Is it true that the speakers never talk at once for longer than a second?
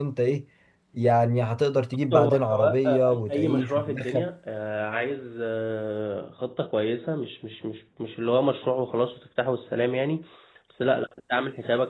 No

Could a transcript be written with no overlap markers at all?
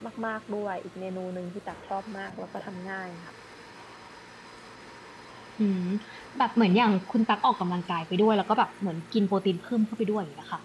Yes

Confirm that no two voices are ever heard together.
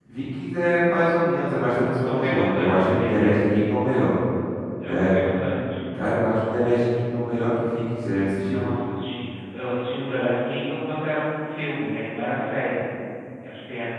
No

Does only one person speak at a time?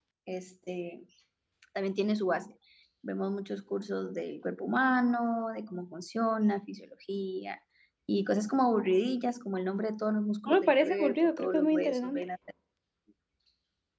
No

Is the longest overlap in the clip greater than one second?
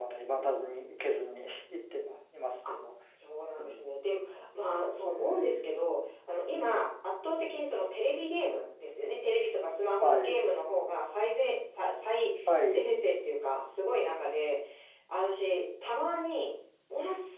No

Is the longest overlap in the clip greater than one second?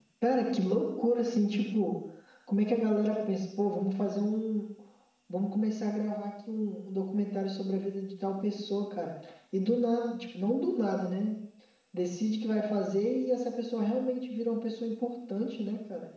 No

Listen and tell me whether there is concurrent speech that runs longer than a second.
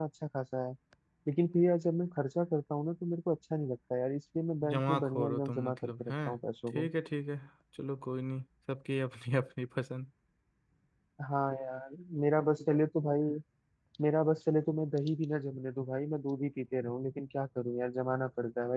Yes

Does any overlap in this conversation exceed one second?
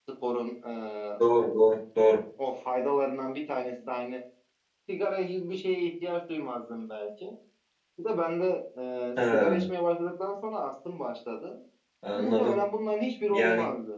No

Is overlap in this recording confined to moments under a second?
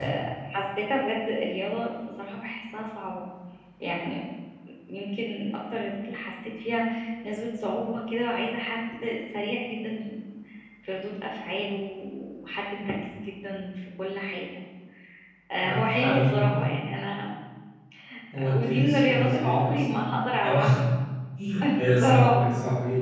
No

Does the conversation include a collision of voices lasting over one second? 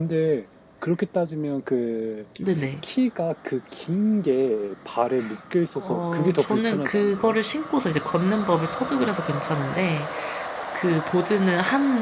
Yes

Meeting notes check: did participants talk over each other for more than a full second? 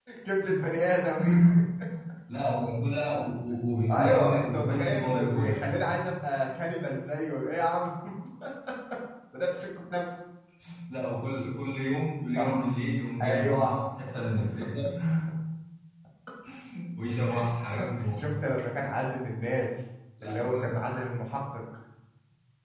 Yes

